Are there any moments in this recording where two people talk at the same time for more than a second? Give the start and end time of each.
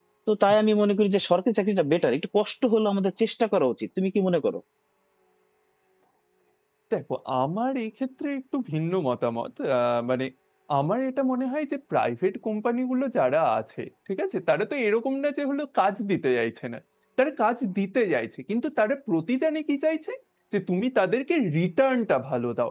none

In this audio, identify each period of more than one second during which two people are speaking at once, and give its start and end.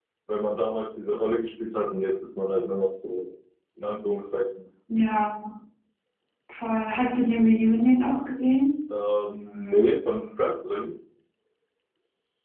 none

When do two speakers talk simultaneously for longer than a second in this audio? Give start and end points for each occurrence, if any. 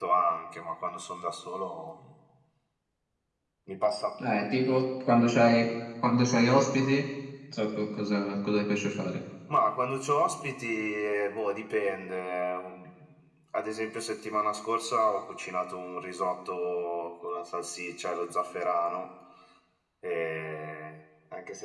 none

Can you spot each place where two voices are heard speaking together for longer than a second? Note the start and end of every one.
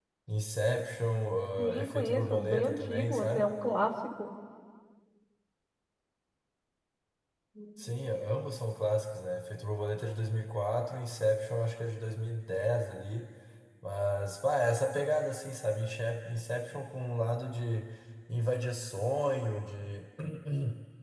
1.6-3.5

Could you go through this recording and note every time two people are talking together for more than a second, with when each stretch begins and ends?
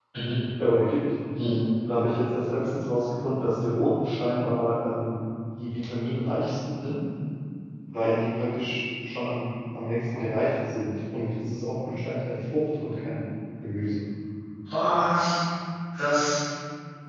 none

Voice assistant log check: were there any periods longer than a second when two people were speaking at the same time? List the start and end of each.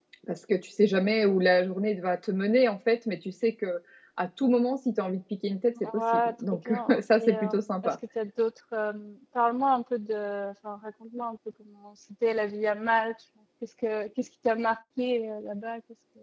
6.0-7.9

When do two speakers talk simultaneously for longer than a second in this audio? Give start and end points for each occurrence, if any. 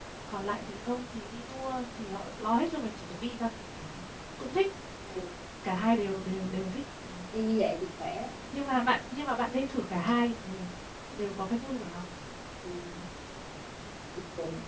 none

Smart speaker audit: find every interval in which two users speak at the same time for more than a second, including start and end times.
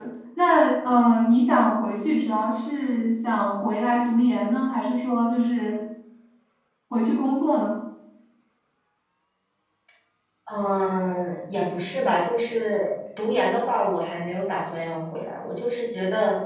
none

